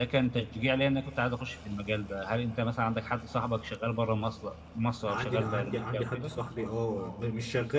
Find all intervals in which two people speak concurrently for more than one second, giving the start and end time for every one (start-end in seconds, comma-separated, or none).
5.1-6.3